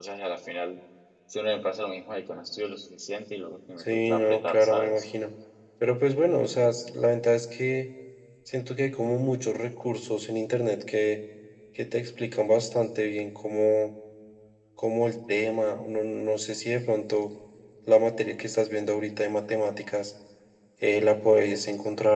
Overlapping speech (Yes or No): Yes